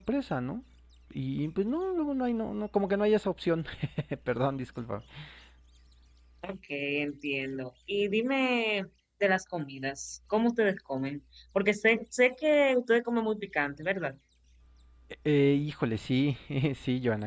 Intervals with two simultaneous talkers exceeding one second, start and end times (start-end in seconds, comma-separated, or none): none